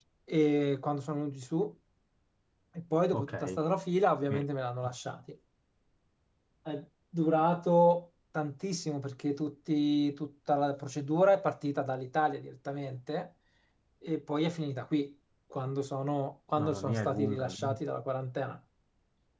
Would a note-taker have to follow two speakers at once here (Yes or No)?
Yes